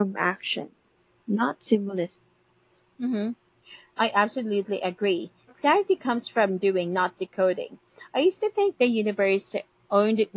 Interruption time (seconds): none

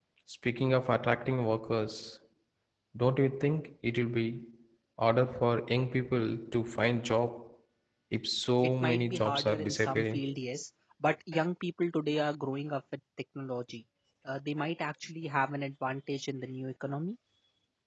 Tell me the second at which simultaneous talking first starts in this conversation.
8.8 s

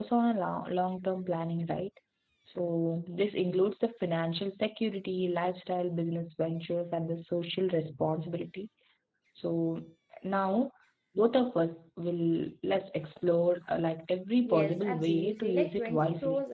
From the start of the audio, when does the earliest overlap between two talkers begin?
14.4 s

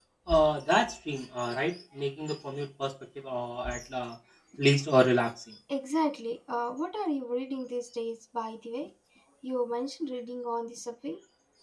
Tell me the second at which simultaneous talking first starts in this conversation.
none

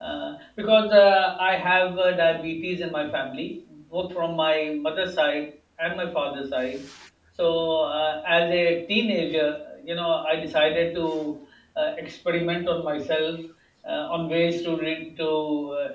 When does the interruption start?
none

